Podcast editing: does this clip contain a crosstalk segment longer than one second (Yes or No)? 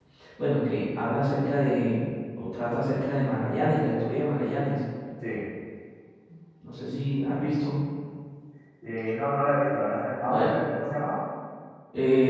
No